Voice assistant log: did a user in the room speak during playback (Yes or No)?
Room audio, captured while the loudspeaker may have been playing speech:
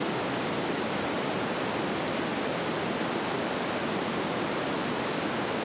No